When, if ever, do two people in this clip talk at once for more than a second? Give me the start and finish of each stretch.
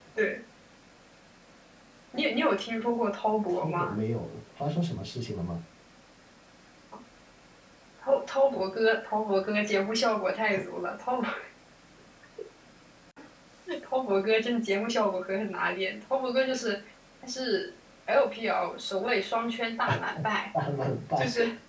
none

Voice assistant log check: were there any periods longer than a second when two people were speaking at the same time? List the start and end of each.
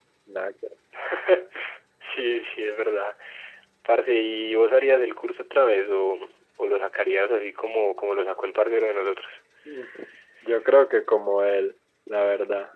none

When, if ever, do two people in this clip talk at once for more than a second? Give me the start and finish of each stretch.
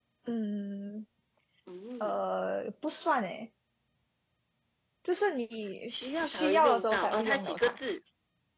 5.9-7.8

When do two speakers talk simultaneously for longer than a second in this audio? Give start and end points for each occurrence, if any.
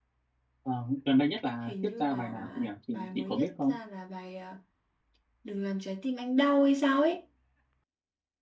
1.7-3.8

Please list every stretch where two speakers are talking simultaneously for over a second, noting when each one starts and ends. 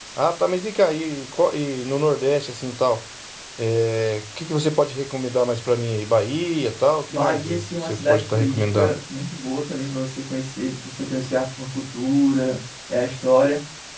7.1-9.0

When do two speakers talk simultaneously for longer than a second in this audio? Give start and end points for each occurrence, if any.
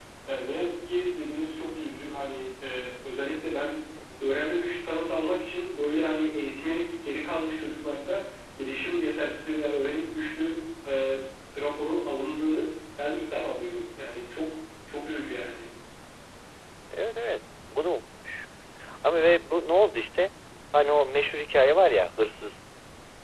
none

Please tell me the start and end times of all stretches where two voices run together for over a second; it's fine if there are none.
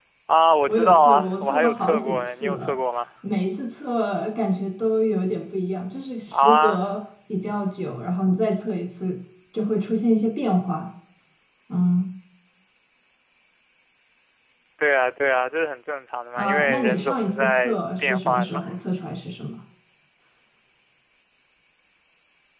0.7-2.7, 16.4-18.6

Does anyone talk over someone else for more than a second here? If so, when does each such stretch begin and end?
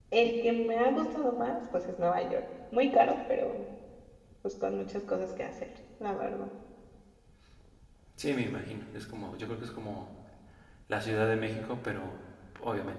none

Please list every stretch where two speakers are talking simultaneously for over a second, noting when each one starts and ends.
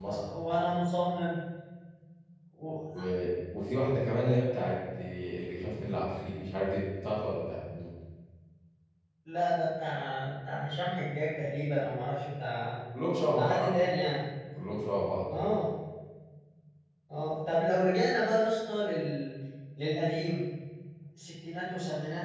none

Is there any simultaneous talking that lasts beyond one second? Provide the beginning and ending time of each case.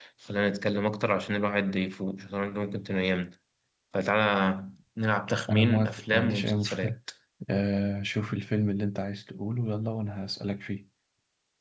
5.5-6.9

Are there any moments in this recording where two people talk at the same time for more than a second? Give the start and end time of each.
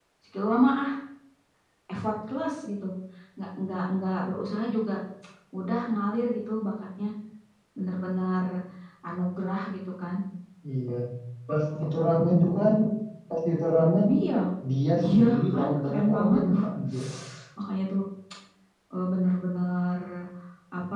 15.0-16.6

